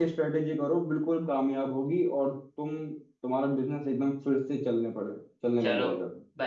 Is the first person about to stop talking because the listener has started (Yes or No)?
Yes